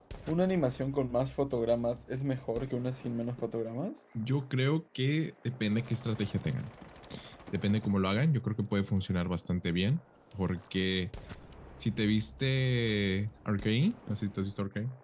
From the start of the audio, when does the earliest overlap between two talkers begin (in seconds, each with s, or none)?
none